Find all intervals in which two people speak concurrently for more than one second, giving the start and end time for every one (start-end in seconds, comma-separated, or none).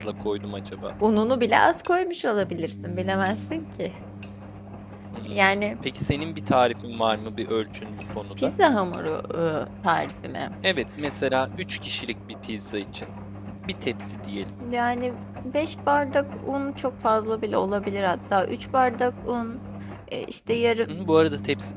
none